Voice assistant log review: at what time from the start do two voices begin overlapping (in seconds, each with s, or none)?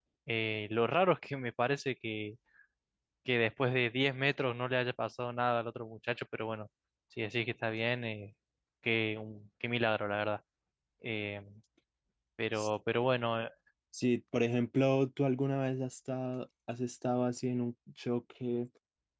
none